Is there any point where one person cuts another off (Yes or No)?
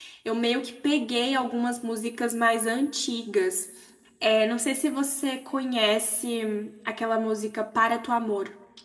No